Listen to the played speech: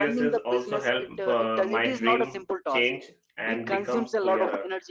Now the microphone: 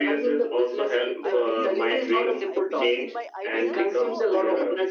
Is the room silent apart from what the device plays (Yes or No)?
No